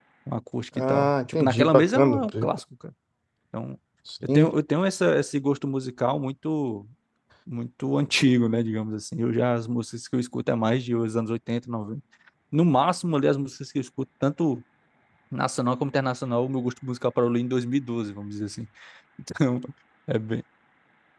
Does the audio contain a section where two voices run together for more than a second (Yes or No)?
Yes